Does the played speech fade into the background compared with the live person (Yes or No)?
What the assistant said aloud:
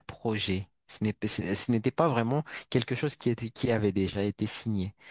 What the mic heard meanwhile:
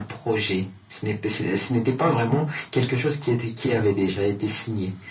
No